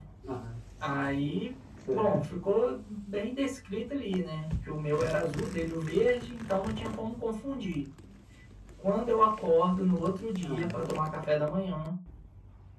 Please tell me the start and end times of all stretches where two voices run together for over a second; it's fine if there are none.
none

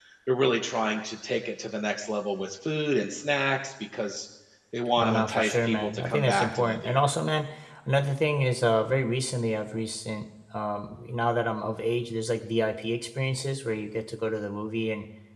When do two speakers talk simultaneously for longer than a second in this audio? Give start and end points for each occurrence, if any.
5.0-7.1

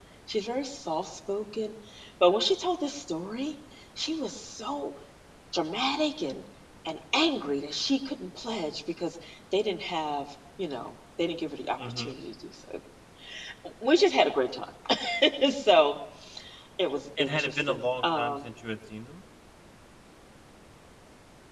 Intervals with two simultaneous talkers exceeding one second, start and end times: 17.2-18.5

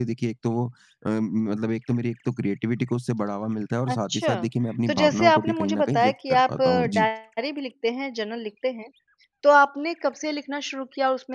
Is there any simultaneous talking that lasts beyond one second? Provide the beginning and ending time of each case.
4.9-7.1

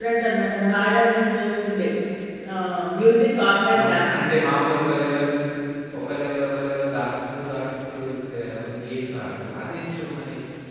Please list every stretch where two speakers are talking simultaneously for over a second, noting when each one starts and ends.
none

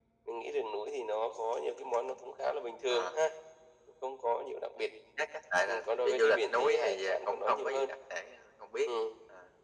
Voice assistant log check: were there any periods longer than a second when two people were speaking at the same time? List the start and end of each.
5.7-7.9

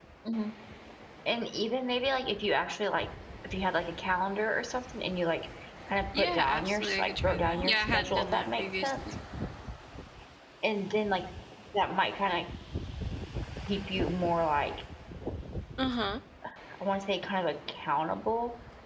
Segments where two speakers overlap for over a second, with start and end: 6.2-8.9

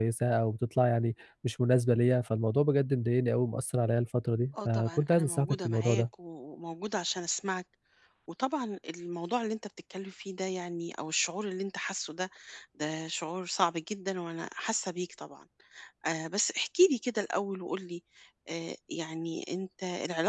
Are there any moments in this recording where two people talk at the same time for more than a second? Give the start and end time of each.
4.7-6.0

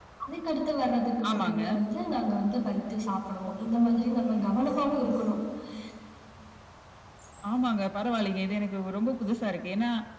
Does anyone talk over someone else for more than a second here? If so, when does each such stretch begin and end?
none

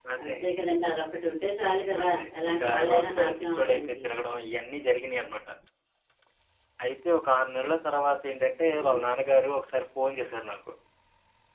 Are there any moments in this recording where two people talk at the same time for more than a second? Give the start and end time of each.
2.0-4.0

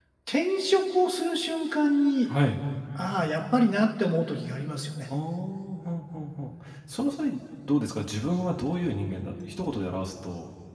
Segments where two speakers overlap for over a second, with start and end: none

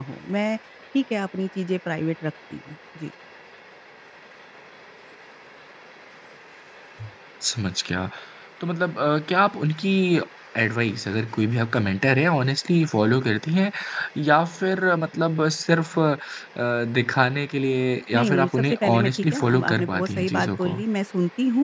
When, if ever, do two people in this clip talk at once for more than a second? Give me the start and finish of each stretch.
18.2-20.8

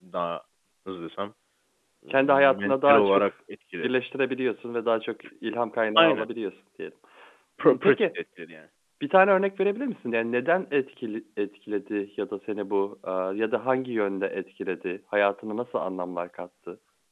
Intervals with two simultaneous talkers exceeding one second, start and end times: 2.1-3.3

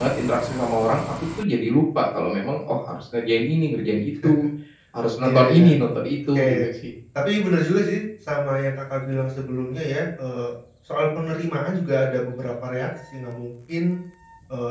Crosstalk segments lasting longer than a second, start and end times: none

